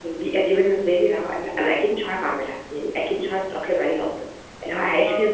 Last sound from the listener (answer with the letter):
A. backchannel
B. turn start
A